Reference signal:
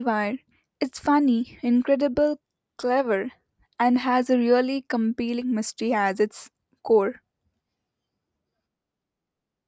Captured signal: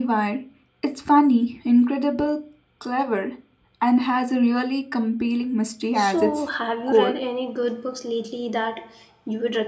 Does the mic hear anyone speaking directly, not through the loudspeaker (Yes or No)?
Yes